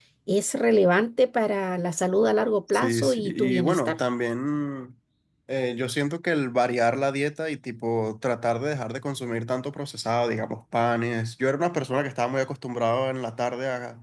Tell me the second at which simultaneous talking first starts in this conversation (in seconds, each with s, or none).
2.7 s